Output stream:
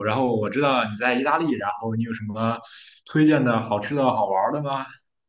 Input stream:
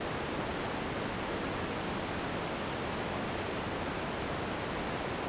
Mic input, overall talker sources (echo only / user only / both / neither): neither